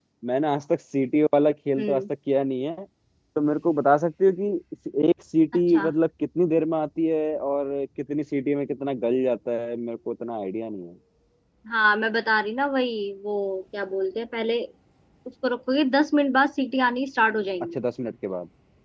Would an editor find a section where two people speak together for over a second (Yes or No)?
No